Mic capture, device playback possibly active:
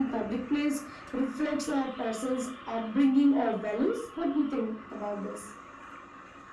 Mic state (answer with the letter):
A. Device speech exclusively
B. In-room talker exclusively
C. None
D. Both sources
A